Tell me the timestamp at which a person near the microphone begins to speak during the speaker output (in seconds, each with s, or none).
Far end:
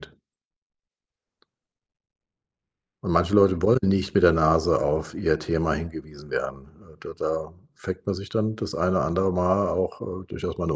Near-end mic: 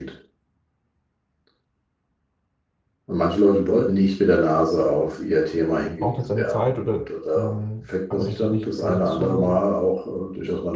6.0 s